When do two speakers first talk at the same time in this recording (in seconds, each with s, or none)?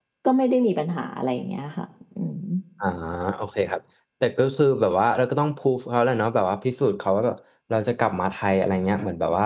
none